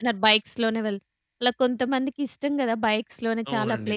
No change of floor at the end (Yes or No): No